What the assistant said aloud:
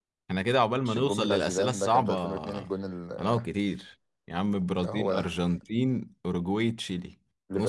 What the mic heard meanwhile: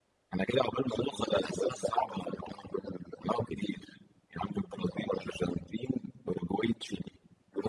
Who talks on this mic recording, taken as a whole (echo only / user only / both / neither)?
echo only